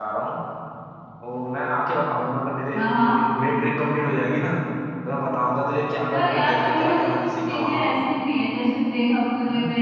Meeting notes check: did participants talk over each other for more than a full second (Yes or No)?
Yes